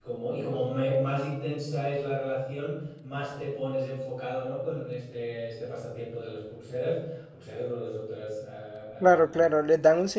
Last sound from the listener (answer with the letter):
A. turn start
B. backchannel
A